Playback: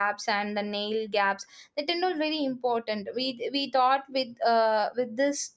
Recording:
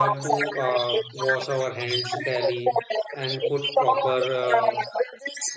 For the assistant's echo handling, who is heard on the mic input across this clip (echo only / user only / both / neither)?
both